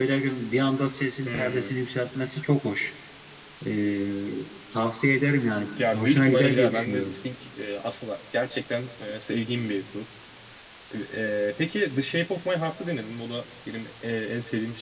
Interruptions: present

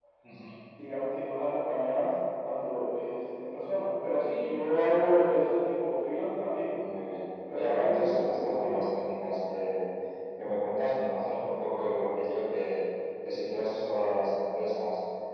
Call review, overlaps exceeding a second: present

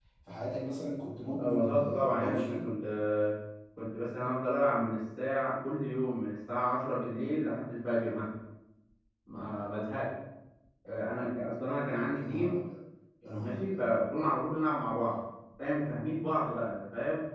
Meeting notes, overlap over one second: present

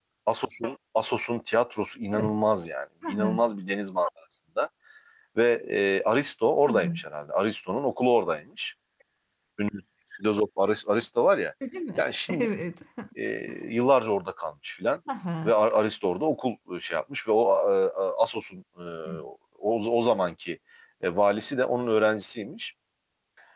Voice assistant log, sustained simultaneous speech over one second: none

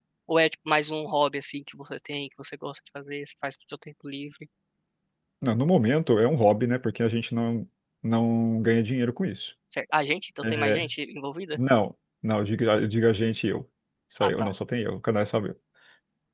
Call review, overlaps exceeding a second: none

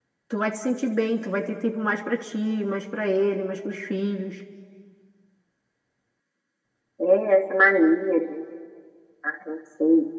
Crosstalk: none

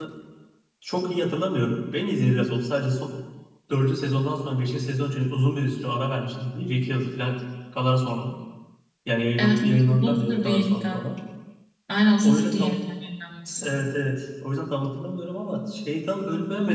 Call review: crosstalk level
present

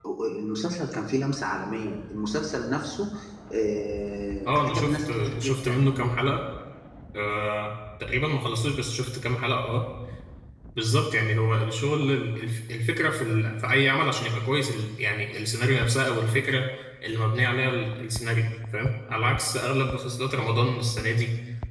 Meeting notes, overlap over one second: present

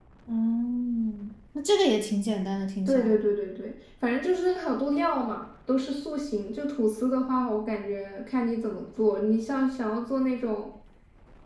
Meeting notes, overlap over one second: none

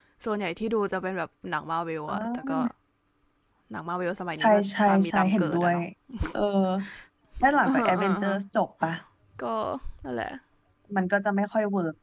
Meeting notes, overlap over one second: present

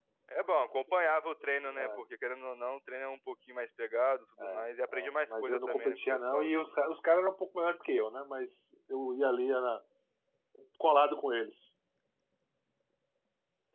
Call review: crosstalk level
present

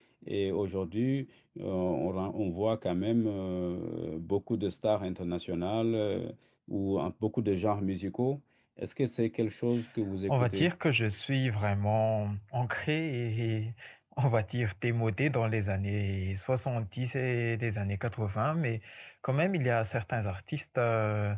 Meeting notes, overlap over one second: none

